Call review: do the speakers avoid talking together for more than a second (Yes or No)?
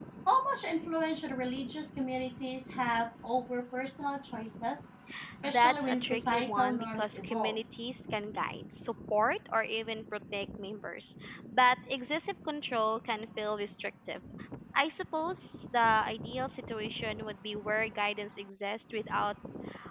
No